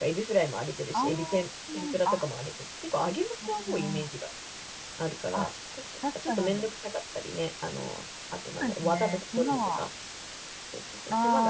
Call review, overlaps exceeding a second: present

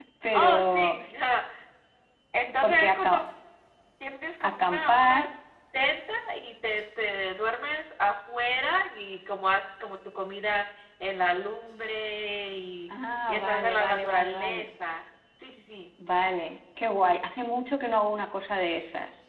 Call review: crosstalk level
present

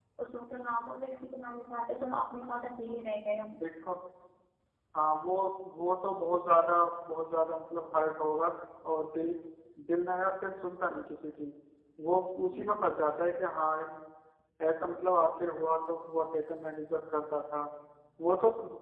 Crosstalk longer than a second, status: none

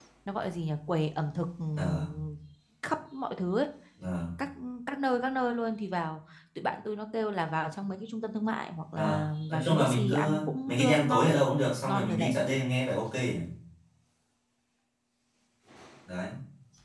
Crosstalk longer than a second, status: present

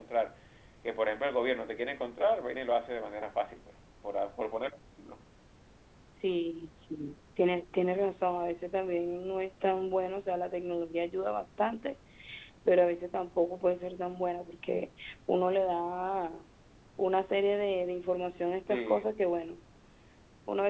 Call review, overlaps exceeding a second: none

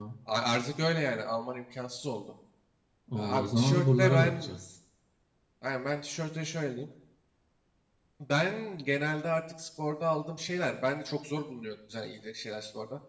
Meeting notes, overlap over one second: present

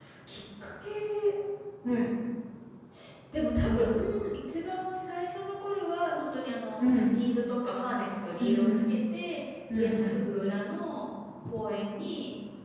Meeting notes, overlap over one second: none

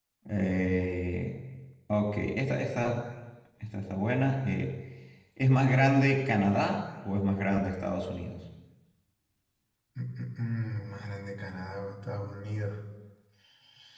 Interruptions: none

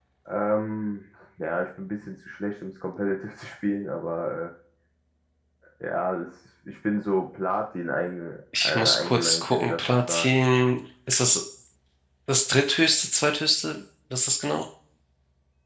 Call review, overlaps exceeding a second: present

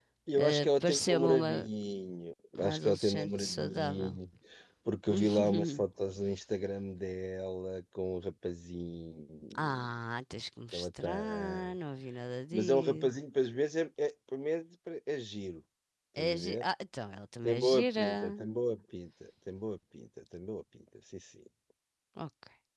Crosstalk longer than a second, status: present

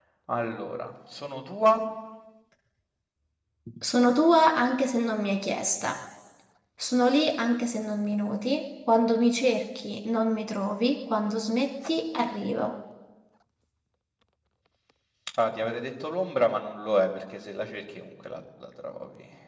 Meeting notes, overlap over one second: none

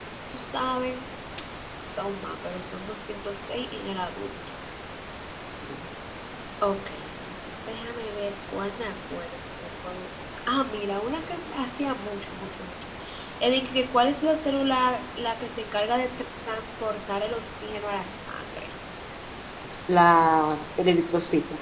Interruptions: none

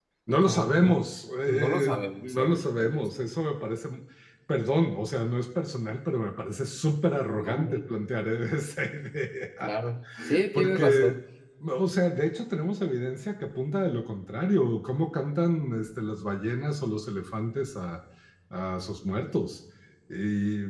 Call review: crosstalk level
present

